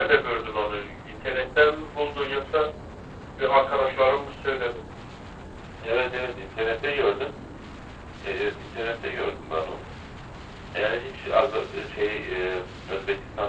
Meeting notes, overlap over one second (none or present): none